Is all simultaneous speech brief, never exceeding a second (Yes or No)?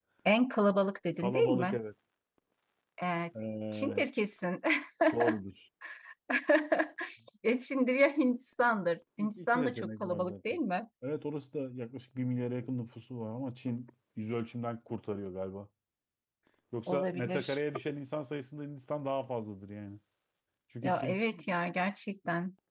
No